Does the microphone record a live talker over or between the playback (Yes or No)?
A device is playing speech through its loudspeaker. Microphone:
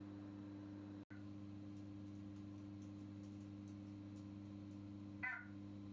No